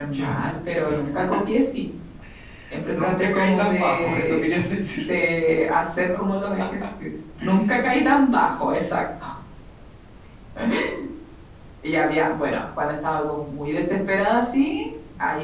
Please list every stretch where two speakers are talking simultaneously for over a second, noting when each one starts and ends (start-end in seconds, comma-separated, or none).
3.0-4.4